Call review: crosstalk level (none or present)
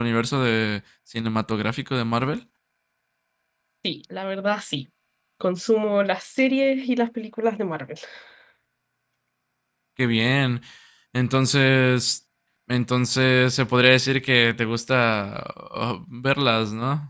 none